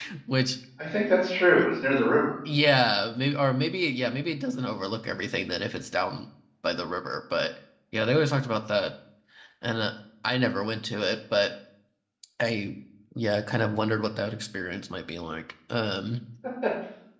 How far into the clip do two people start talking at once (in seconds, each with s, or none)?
none